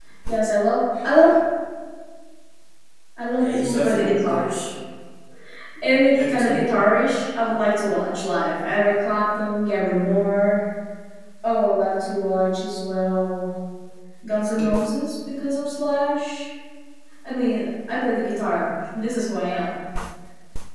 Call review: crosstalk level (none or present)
present